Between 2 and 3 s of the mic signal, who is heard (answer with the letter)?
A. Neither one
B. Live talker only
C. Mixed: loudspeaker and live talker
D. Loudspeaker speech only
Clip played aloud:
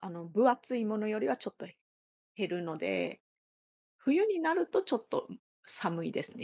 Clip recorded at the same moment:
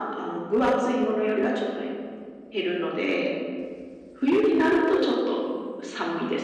D